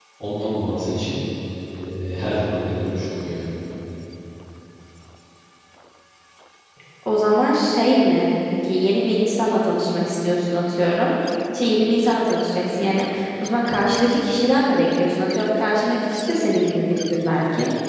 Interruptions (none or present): none